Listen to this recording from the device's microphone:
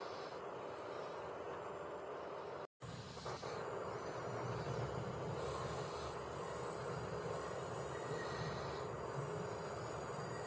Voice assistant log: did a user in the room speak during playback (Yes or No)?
No